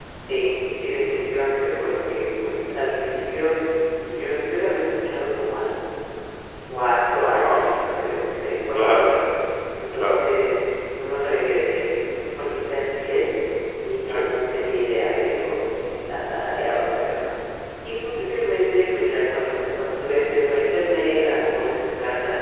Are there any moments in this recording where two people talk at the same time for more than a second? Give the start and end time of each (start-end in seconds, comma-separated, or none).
none